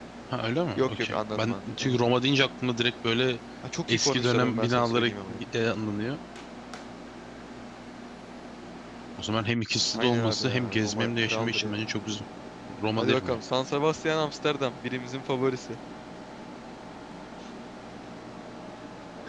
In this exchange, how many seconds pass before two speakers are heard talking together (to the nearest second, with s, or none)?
1 s